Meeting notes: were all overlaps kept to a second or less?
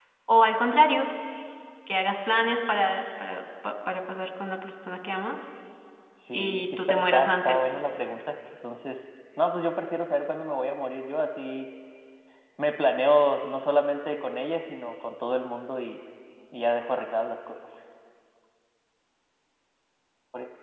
No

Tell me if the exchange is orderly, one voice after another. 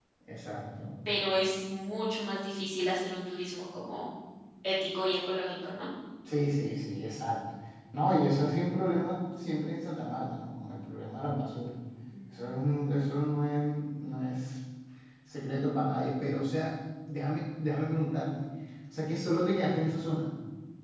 Yes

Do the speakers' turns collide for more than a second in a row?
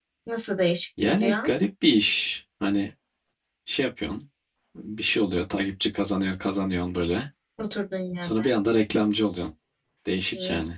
No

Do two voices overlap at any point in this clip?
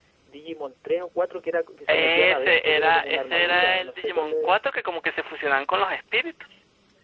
Yes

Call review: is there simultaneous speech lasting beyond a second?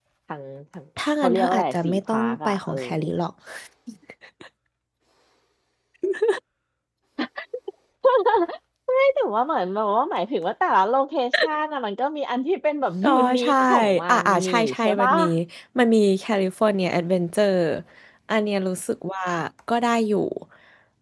Yes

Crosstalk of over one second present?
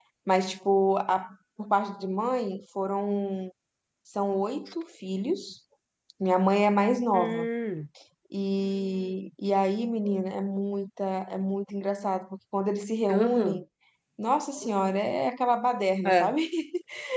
No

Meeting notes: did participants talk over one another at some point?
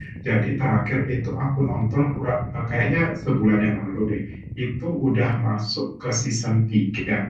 No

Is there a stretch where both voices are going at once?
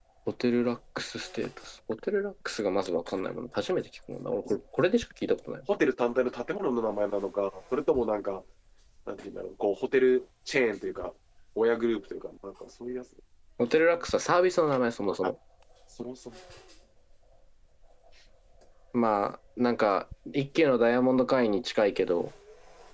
No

